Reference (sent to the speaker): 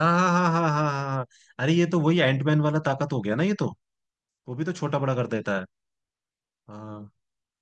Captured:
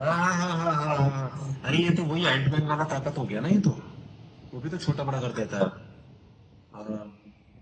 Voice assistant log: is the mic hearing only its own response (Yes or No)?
Yes